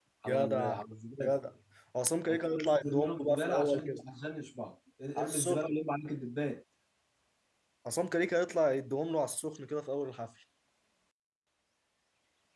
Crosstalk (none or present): present